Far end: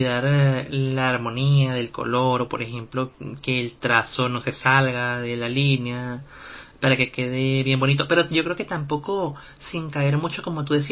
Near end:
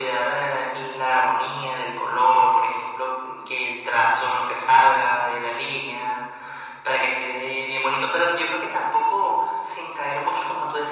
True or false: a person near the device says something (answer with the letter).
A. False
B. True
A